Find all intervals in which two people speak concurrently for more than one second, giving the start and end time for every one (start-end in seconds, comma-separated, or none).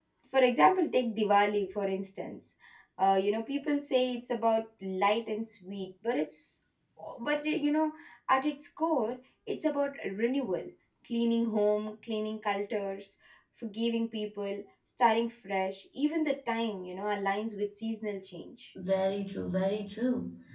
none